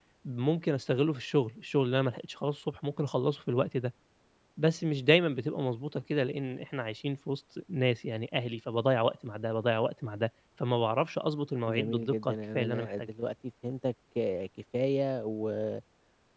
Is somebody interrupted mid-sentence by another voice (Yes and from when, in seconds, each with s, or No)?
Yes, from 11.7 s